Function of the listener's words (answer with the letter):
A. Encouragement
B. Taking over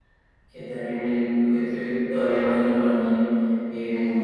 A